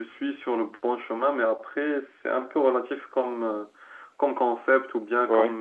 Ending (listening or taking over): listening